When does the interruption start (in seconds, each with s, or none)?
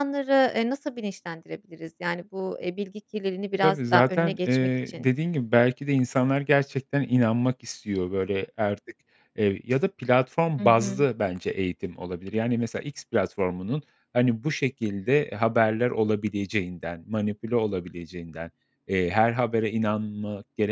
3.6 s